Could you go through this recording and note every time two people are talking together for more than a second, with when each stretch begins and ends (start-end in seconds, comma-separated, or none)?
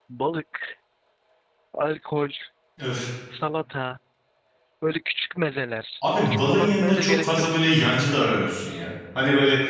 6.2-7.5